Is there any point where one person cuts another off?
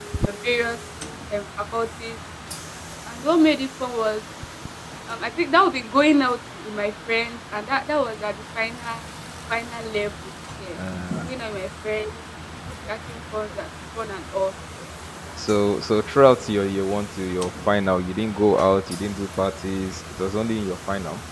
No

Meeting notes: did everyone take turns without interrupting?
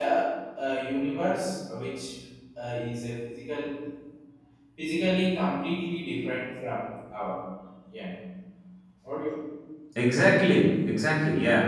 Yes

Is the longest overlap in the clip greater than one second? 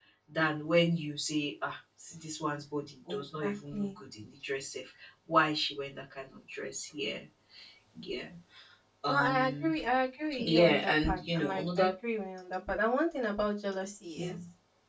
Yes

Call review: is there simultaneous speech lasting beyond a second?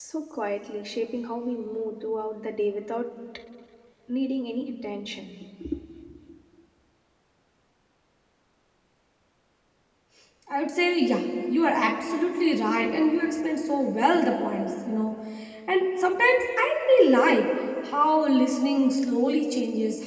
No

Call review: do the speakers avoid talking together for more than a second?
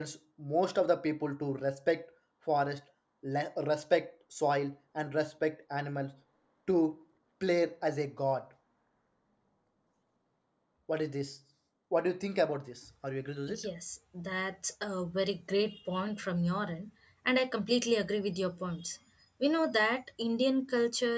Yes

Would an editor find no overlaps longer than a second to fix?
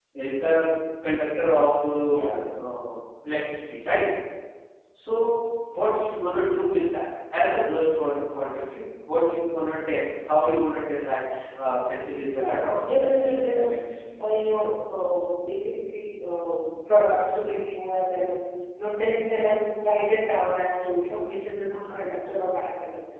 No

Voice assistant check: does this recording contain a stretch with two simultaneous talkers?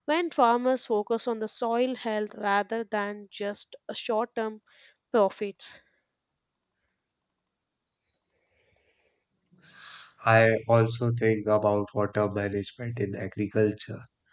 No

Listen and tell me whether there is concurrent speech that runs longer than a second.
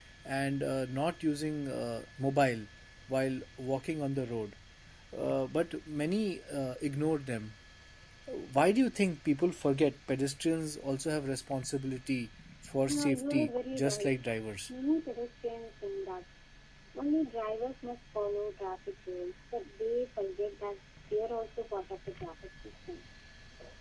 Yes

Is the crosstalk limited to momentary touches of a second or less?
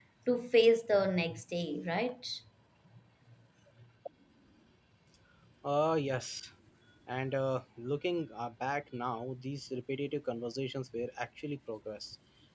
Yes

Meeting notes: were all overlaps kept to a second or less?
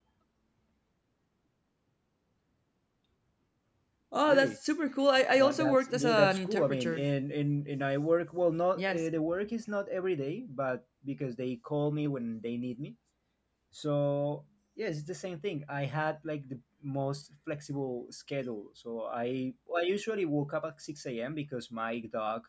No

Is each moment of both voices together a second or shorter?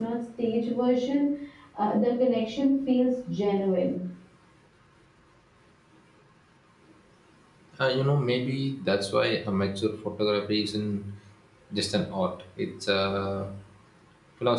Yes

